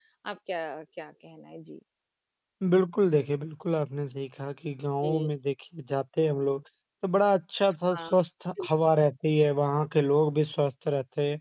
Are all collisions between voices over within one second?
Yes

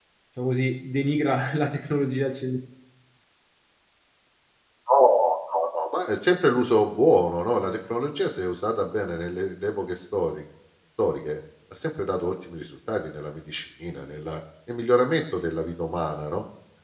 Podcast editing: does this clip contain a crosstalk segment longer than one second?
No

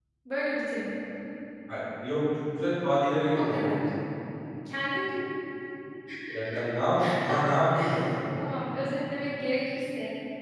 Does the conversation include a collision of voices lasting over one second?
No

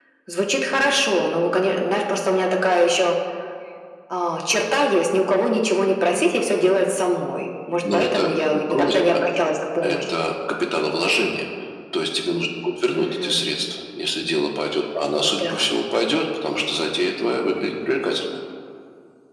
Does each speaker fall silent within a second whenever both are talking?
No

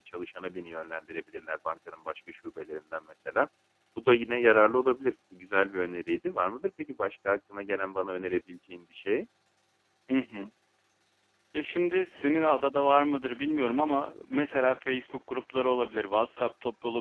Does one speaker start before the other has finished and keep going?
No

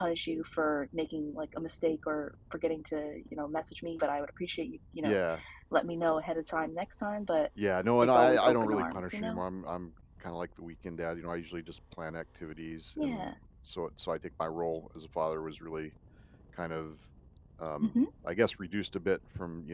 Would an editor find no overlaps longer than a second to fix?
No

